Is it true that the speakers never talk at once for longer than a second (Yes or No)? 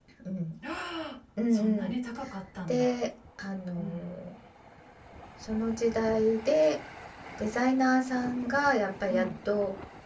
Yes